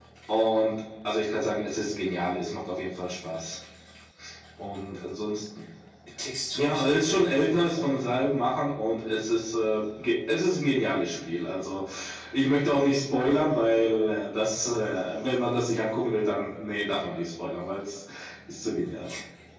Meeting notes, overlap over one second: present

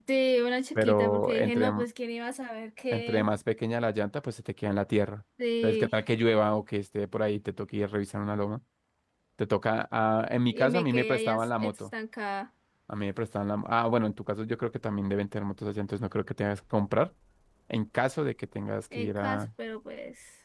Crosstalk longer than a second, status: present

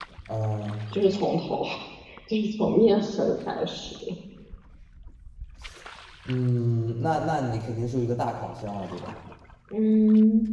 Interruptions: none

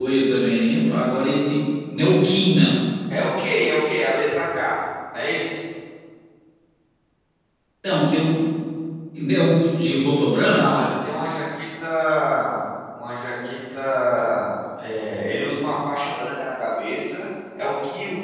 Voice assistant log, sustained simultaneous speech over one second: none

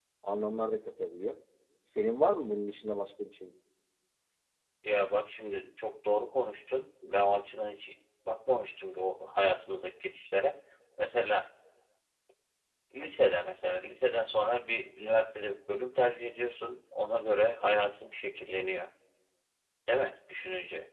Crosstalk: none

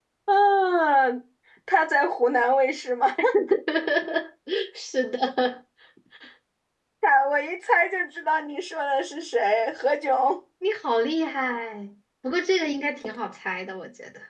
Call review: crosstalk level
none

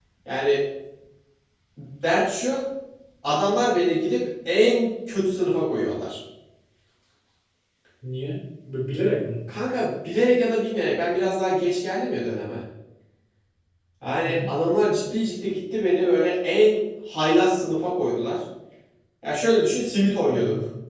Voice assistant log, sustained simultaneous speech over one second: none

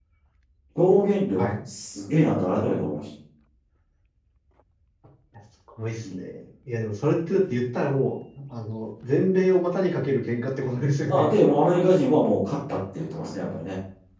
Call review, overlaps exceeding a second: none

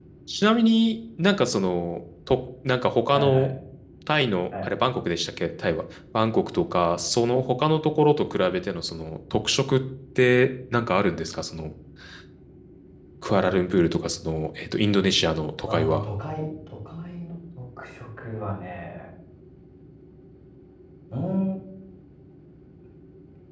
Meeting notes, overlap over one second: none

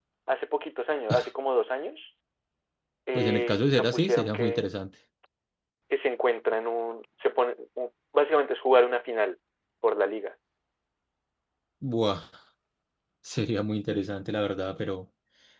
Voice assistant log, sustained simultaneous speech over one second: present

